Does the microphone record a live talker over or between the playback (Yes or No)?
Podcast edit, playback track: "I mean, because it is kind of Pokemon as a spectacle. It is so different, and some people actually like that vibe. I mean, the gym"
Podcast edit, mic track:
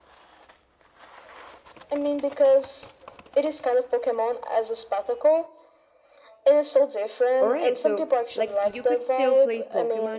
Yes